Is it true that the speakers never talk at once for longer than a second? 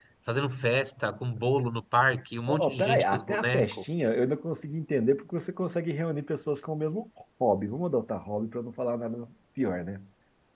No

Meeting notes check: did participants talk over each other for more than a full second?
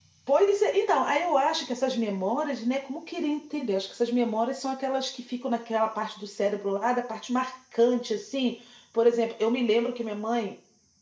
No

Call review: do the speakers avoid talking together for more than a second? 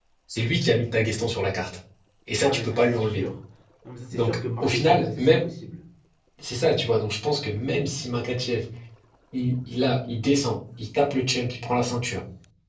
No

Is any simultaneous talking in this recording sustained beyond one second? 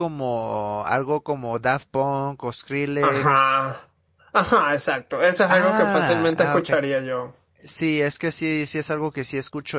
Yes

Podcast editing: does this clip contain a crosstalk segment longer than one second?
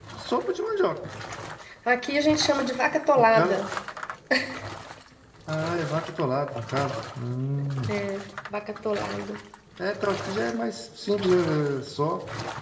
No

